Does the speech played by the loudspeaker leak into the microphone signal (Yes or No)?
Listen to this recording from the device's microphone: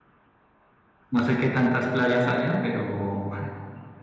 No